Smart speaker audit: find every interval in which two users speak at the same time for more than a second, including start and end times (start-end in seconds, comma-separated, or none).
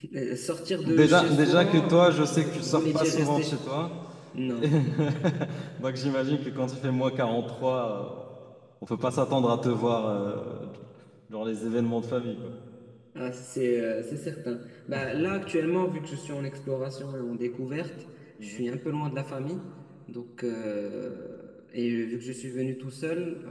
0.8-3.6